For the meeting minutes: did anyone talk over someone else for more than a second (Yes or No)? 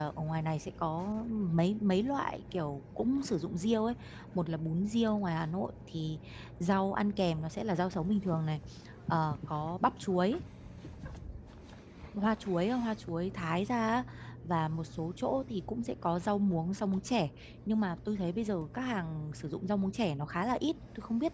No